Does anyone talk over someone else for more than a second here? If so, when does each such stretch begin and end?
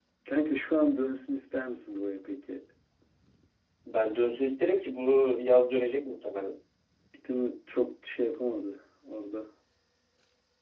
none

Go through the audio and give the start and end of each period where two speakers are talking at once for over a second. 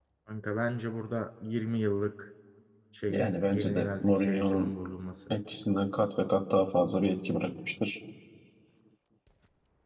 3.1-4.7

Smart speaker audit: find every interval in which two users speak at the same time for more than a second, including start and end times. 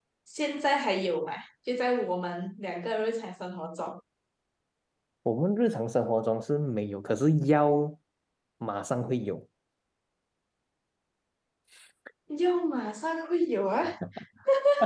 none

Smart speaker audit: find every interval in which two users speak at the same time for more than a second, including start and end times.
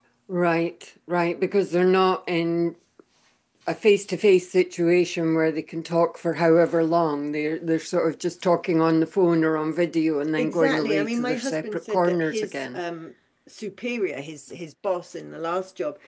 10.4-12.8

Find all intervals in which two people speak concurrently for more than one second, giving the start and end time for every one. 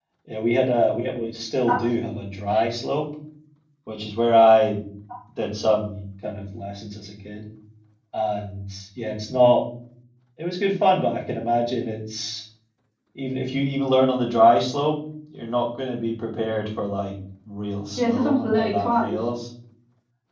18.0-19.2

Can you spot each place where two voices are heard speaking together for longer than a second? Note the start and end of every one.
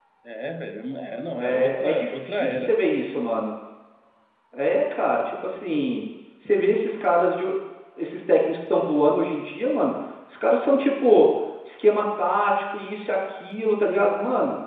1.4-2.7

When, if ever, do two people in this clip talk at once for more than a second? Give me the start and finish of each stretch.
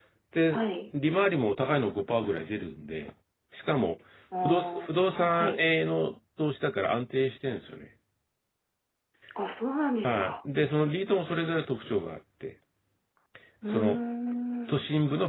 4.4-5.6

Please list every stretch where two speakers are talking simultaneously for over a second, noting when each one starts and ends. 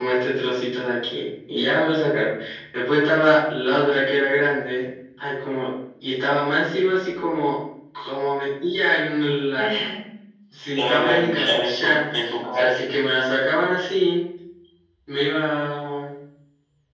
10.7-12.1

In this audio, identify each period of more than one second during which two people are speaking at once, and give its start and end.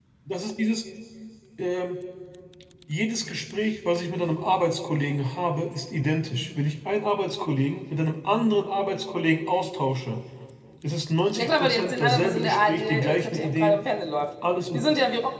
11.3-13.8

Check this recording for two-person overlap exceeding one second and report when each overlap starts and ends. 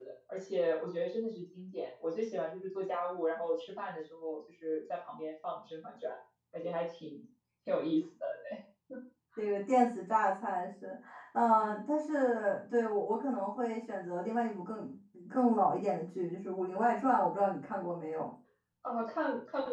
none

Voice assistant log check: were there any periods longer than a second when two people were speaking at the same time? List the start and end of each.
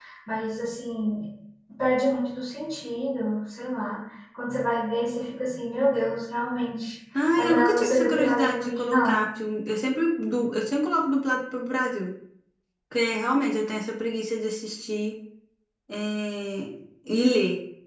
7.2-9.2

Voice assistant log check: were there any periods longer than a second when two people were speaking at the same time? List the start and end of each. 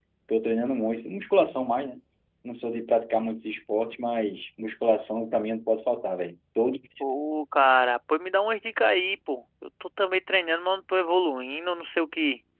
none

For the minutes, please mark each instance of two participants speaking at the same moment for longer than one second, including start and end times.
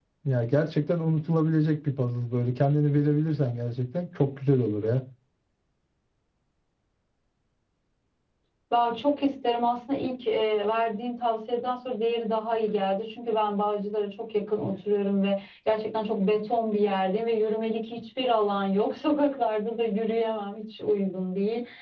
none

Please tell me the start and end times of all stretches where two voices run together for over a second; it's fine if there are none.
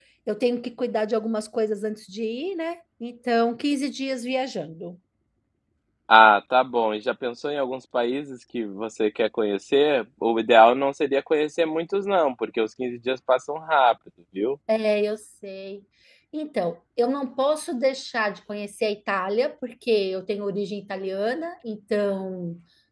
none

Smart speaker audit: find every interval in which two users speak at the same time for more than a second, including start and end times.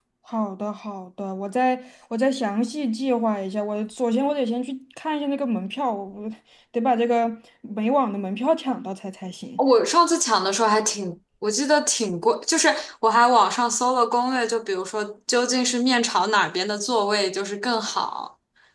none

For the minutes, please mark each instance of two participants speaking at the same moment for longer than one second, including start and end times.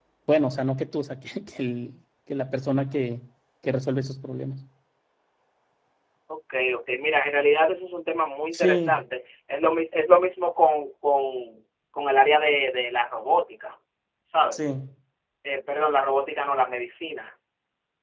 none

